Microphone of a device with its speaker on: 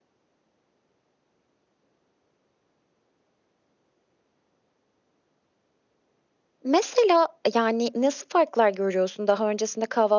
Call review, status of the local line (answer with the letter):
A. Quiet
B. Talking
B